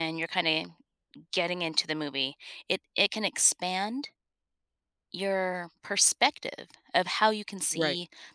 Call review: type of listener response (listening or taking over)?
listening